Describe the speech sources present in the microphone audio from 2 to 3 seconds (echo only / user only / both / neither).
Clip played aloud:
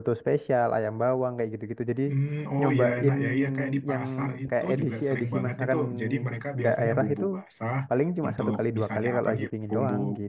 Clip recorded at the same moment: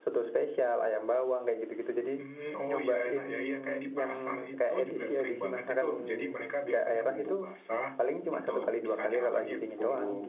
echo only